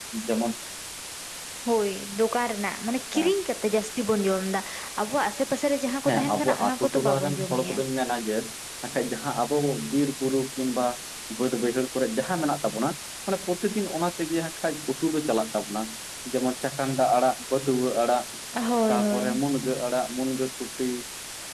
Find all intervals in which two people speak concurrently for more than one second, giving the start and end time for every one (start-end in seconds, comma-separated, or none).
6.0-7.8